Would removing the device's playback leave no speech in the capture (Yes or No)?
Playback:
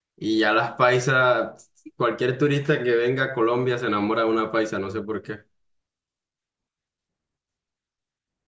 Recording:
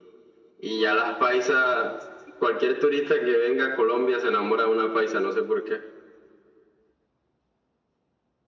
Yes